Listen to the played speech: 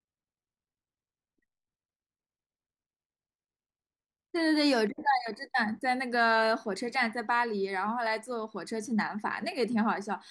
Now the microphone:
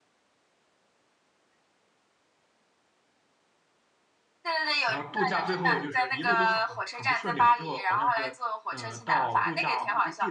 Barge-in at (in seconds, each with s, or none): 4.8 s